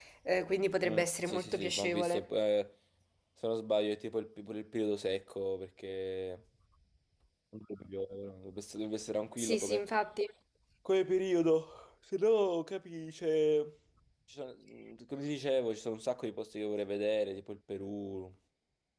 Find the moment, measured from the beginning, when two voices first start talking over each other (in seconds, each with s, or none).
0.8 s